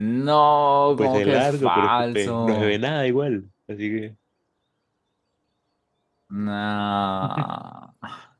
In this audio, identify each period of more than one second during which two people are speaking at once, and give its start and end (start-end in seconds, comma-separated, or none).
1.0-2.8